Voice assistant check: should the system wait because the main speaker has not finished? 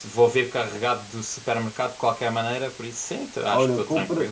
No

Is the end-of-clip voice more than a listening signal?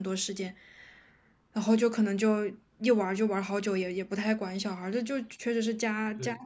Yes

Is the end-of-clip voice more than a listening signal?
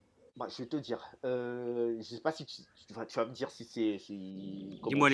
Yes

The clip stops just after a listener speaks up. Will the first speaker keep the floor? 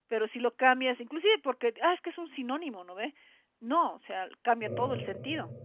Yes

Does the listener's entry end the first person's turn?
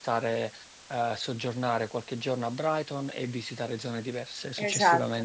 Yes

